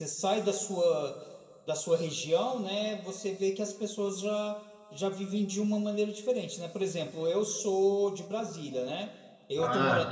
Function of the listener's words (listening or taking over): listening